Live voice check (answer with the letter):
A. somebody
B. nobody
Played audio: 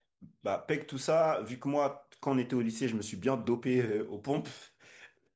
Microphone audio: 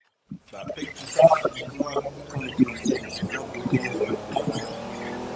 B